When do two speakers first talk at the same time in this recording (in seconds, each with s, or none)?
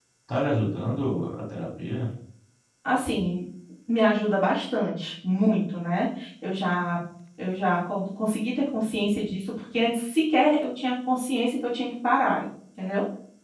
none